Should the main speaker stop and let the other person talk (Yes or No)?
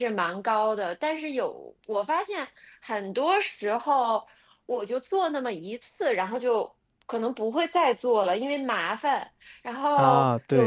No